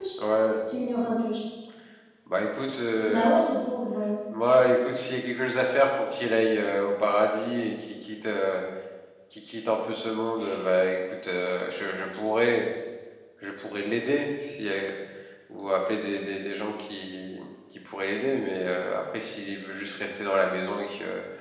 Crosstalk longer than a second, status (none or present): none